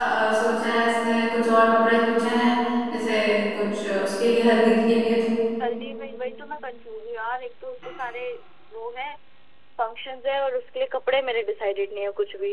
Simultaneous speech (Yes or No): No